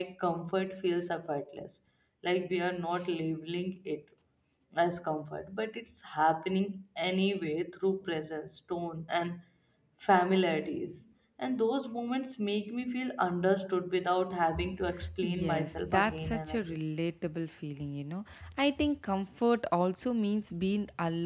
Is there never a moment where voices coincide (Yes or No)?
No